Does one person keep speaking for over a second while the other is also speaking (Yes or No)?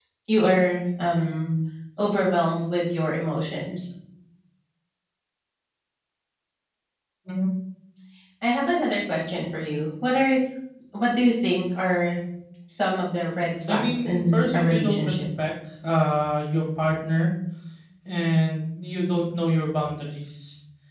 Yes